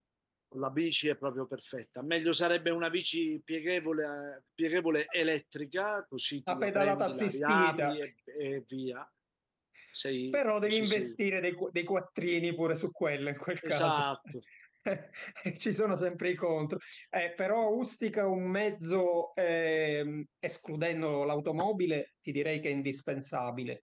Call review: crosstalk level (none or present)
present